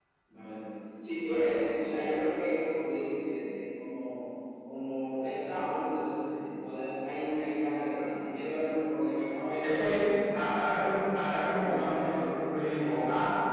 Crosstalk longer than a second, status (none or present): present